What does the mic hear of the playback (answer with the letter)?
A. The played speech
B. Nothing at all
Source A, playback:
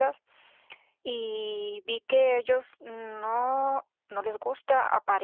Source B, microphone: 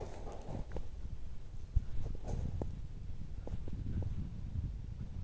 B